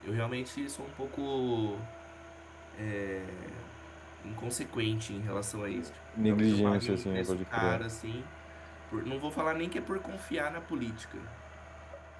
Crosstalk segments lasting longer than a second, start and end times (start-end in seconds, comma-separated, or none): 6.2-7.8